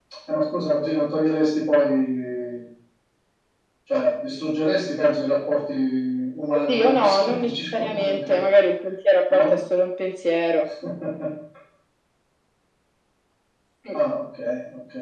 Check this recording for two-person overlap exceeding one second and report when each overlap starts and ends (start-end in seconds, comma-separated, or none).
6.5-8.5